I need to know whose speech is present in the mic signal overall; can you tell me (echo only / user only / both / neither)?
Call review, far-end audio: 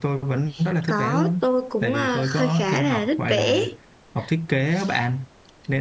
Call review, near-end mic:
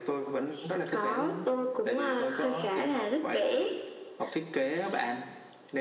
echo only